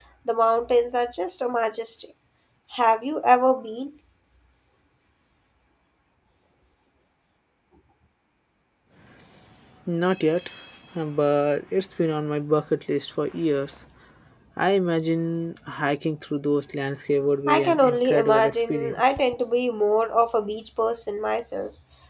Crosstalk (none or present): present